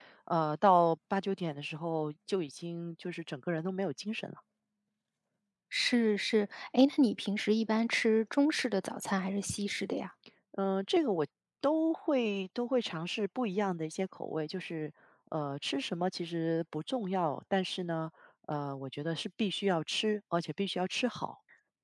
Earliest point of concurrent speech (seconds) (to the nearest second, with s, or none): none